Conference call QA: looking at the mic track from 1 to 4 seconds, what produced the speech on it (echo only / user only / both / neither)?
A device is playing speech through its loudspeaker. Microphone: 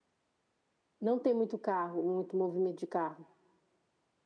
echo only